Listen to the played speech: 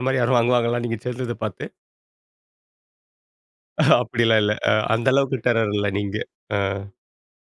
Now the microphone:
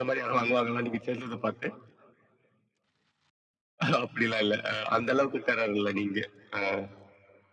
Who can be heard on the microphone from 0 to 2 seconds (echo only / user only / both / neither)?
echo only